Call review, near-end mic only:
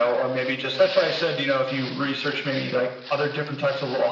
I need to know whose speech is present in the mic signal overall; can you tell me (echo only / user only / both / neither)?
echo only